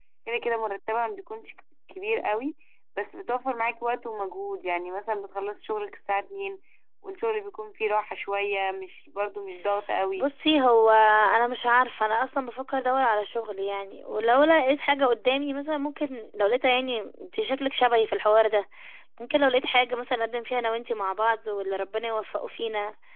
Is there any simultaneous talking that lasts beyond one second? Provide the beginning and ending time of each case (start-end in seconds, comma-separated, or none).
none